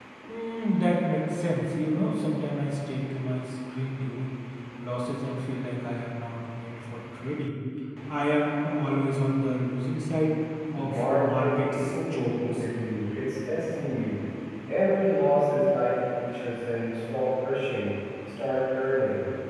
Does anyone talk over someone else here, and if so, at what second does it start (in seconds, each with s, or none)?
10.7 s